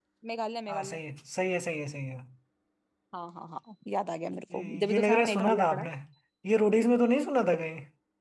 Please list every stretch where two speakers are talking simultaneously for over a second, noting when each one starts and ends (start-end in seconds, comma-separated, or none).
4.5-5.9